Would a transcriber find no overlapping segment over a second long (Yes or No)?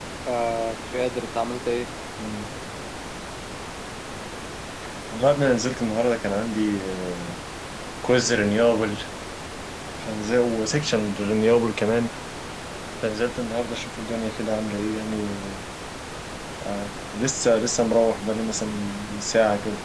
Yes